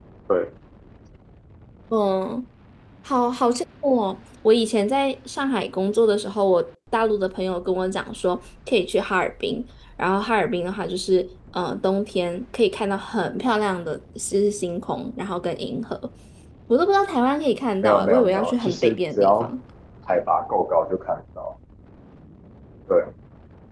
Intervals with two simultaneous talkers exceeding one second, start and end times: 17.8-19.5

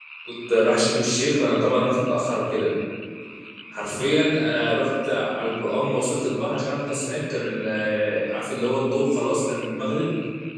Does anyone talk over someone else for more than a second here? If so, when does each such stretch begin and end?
none

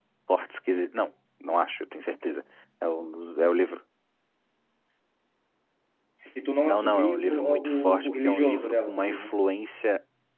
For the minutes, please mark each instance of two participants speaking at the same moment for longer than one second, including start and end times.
6.6-9.3

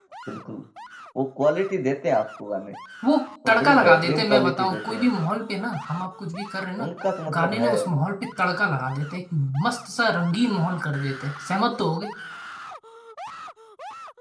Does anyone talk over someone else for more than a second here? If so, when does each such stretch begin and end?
3.5-5.1

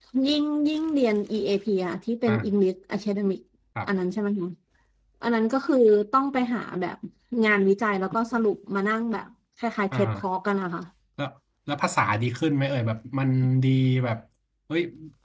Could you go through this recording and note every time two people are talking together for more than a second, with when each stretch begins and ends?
none

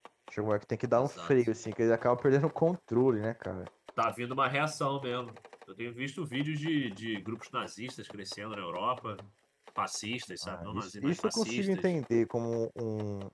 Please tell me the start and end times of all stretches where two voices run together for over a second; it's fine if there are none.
10.4-11.9

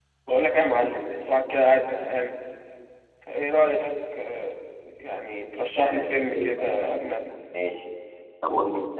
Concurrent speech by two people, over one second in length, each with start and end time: 5.8-7.1

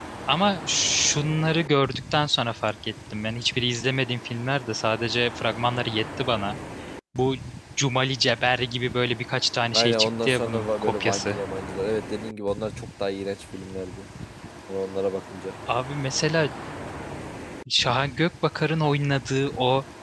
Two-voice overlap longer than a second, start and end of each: 9.7-11.4

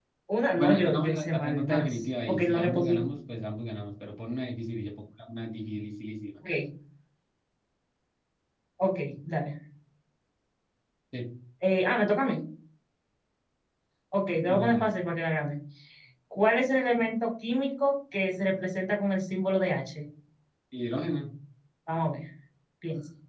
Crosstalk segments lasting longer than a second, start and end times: 0.6-3.0

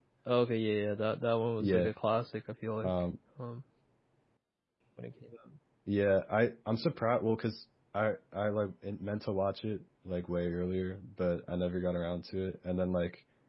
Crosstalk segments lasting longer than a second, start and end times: none

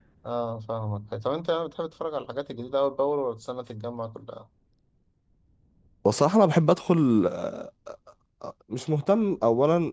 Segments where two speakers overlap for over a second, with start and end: none

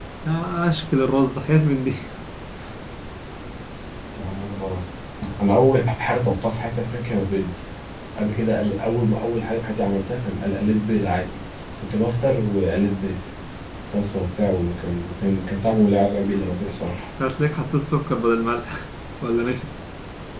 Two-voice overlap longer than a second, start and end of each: none

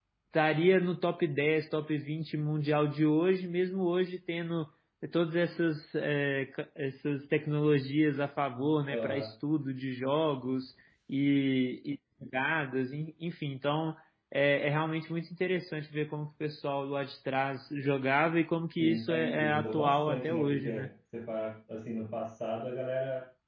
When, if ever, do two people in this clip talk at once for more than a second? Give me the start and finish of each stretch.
18.8-20.9

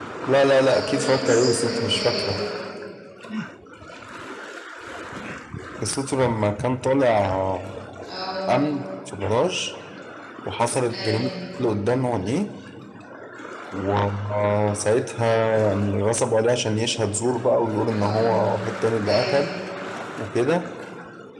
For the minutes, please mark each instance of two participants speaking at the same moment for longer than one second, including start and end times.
0.7-2.4

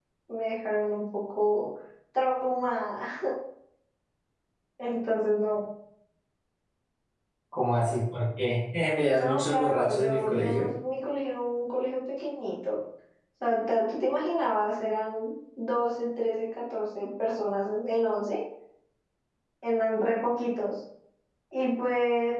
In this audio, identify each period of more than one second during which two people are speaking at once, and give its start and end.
9.1-10.7

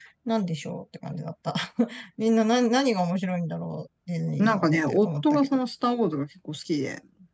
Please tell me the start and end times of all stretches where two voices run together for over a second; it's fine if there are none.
4.4-5.6

